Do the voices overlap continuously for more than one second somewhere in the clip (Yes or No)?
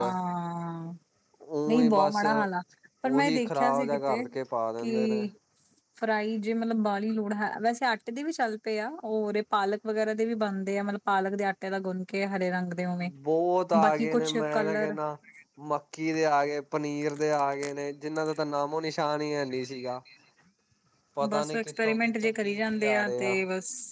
Yes